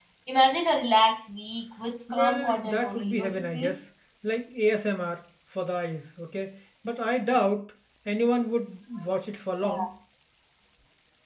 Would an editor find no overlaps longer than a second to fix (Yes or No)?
No